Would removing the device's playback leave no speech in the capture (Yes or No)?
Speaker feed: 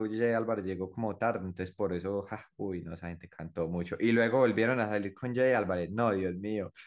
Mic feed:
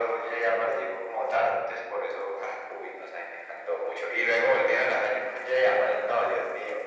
Yes